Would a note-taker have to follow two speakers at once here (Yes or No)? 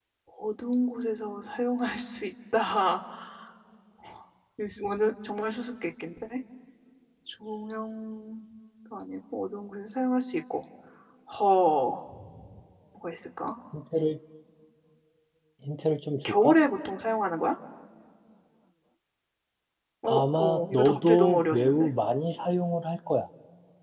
Yes